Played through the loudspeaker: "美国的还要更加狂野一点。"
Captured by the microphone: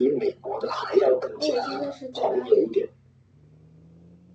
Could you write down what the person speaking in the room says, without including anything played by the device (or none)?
哦，我现在是在巴黎。